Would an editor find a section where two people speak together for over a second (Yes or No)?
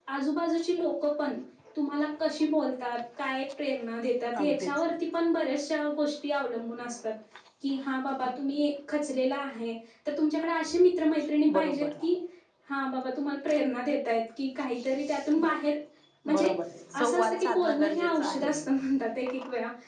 Yes